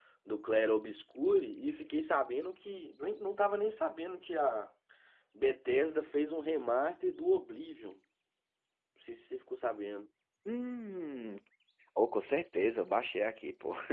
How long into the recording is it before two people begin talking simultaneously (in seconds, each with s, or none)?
none